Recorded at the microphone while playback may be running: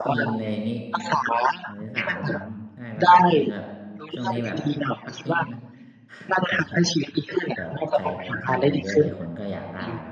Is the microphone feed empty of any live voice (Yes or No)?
No